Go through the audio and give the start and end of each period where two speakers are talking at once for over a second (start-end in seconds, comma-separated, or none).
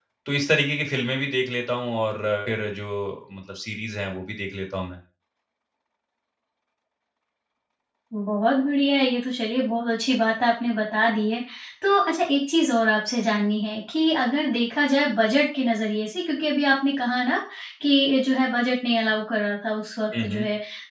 none